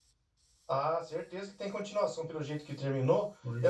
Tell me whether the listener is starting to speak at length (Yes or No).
No